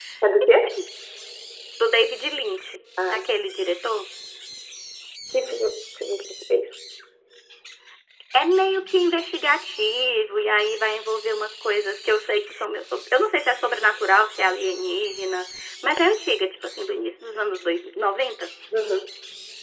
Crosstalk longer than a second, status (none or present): none